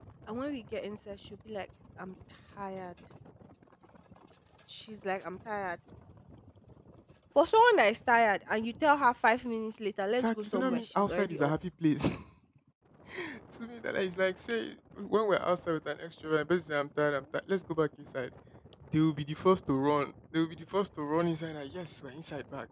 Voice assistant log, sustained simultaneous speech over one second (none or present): present